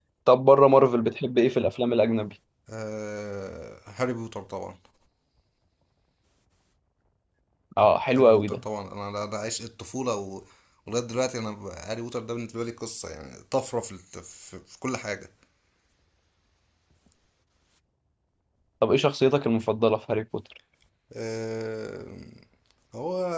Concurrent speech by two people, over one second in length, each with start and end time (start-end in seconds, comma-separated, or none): none